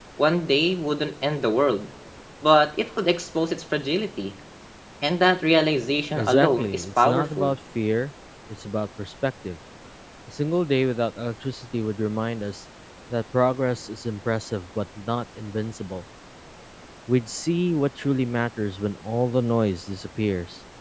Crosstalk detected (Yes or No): Yes